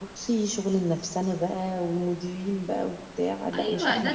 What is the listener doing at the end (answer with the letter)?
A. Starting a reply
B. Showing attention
A